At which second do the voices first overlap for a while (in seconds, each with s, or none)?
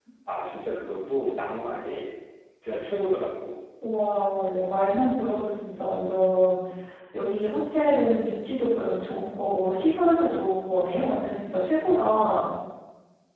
none